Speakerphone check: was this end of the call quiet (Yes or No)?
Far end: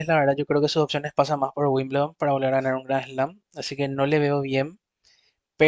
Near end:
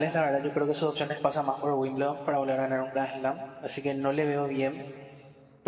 Yes